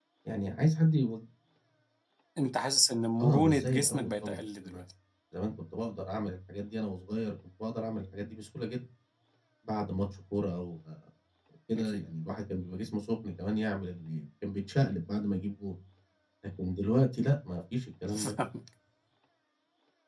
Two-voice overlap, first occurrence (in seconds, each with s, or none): 3.2 s